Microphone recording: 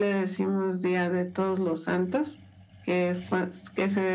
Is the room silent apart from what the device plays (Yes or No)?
Yes